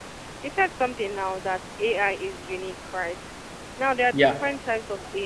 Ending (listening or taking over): listening